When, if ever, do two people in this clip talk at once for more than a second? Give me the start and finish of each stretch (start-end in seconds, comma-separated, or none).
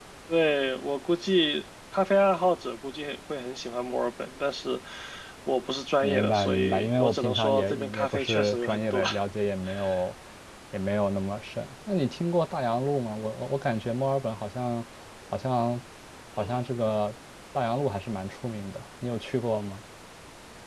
6.0-9.0